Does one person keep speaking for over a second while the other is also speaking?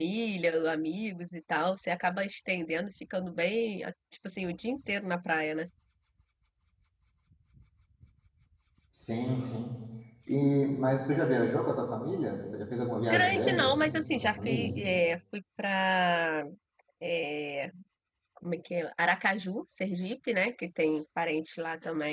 Yes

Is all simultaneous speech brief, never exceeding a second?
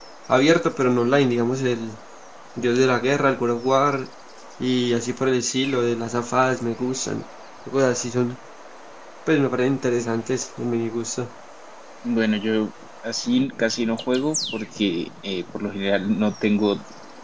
Yes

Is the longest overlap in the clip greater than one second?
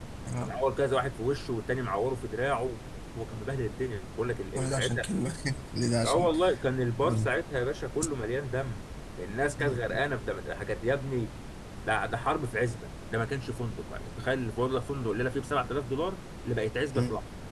No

